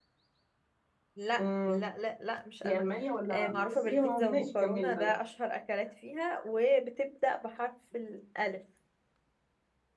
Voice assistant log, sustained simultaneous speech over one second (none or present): present